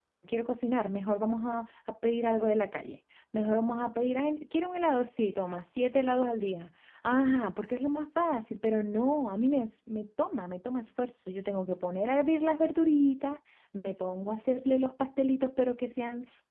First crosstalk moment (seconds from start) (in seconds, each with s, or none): none